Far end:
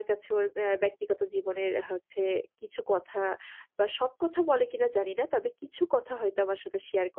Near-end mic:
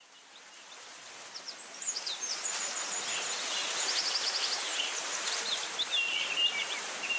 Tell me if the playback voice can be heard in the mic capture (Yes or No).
No